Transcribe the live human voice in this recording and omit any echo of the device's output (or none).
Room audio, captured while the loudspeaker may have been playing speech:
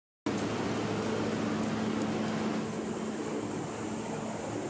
none